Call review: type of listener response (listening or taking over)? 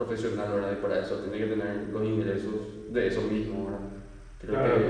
listening